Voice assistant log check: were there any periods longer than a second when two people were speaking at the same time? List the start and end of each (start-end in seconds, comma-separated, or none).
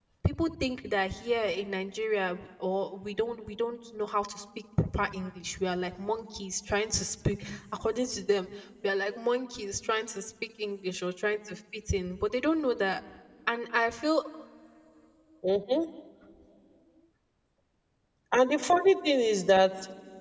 none